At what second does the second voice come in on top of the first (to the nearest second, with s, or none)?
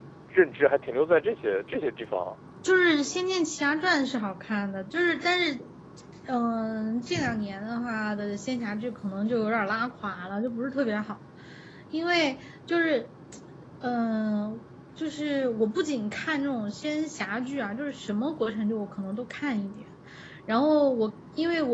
none